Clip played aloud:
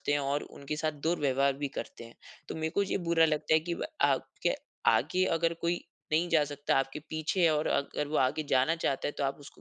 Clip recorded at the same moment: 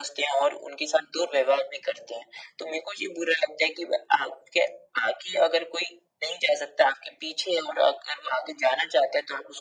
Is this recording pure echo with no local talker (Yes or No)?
Yes